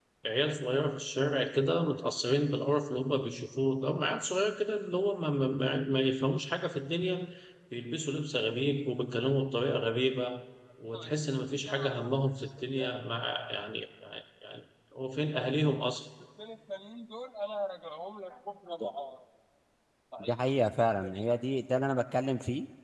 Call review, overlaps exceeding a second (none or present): none